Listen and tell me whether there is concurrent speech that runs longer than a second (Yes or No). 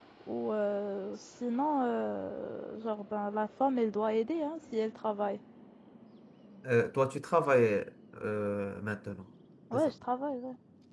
No